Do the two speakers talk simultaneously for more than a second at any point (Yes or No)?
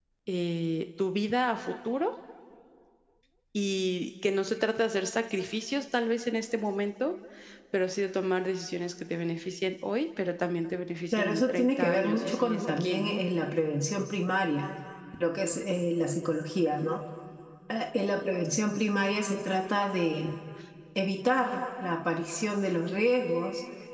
Yes